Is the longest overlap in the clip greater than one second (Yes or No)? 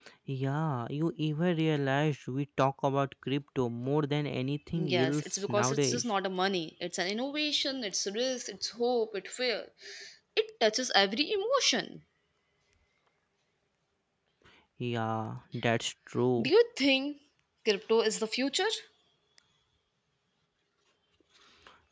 Yes